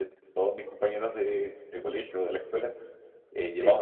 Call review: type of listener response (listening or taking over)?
listening